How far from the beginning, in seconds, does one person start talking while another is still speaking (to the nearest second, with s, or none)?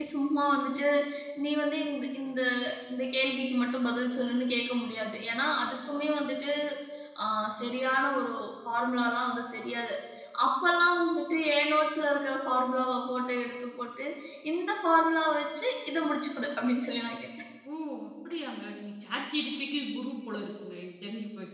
none